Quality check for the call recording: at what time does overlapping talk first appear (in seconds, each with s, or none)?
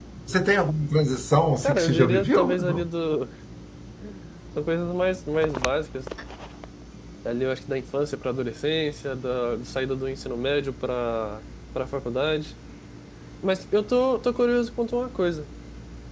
1.6 s